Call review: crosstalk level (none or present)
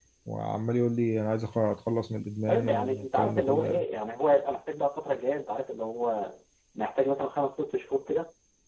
present